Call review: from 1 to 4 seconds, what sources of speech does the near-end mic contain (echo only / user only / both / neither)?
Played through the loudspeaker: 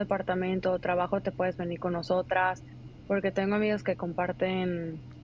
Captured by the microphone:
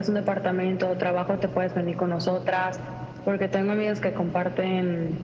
echo only